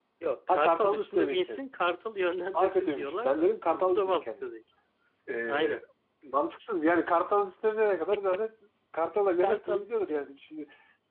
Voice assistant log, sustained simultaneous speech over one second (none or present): present